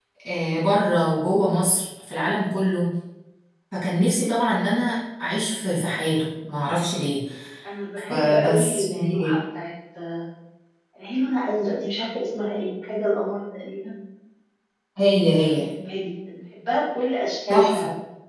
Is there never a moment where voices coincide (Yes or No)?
No